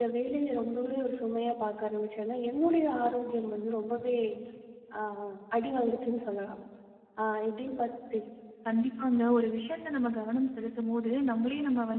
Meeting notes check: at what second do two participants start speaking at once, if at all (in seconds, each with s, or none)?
none